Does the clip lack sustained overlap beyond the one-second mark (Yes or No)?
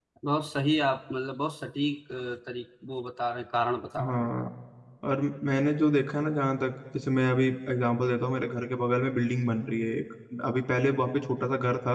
Yes